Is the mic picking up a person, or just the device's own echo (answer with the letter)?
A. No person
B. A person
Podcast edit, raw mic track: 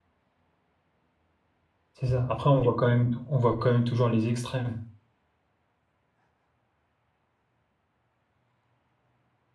B